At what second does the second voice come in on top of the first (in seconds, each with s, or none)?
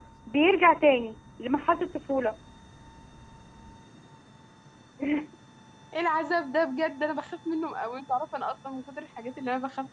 none